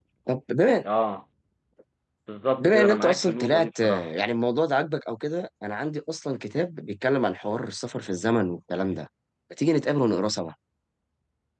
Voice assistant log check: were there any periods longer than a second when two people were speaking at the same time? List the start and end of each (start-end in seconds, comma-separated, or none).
2.6-4.1